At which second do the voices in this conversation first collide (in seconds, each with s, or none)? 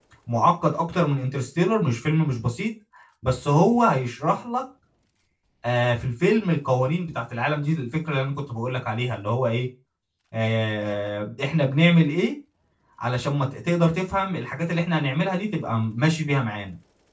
none